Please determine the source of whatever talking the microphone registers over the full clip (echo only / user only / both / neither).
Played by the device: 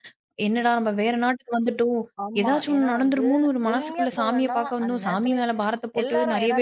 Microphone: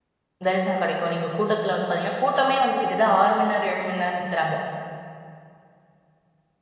user only